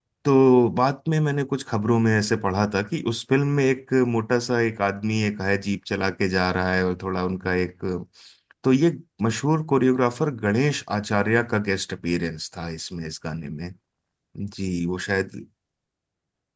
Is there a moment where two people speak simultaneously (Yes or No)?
No